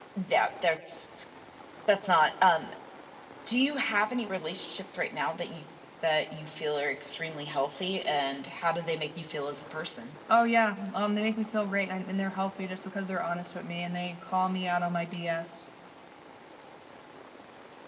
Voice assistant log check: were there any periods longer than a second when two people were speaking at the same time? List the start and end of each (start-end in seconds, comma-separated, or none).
none